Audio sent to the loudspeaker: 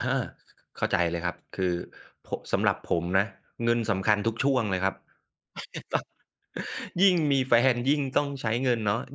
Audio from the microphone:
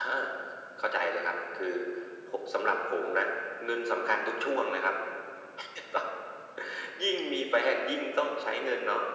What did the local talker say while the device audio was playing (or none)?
none